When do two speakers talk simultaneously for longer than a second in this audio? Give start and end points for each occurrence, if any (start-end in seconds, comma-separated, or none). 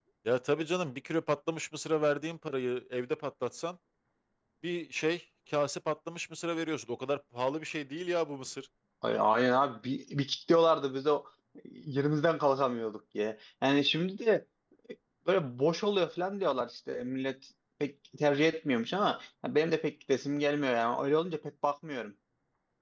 none